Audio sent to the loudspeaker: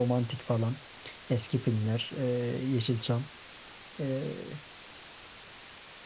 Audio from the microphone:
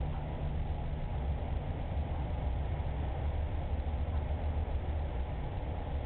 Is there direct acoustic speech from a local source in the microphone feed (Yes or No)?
No